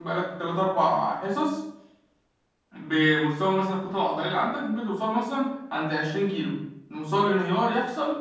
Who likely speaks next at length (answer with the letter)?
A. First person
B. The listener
A